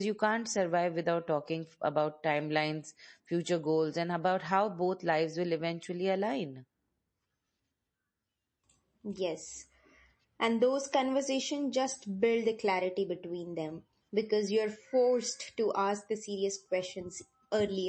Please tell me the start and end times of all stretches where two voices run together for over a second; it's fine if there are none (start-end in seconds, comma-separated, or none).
none